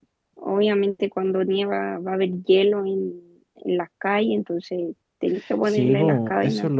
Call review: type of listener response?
taking over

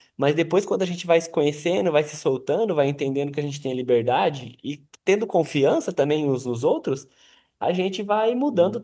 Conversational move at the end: listening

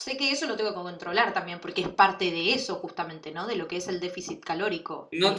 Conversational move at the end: taking over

